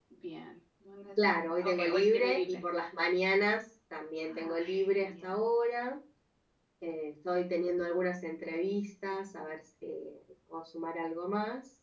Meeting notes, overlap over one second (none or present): present